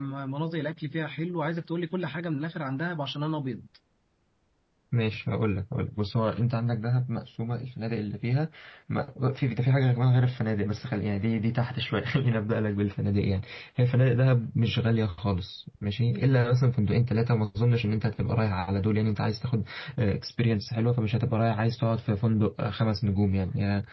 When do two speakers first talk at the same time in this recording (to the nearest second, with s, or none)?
none